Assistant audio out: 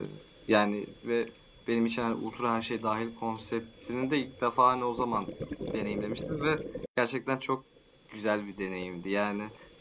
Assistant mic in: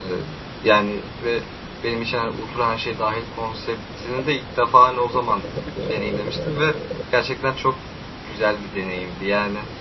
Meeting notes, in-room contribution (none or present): none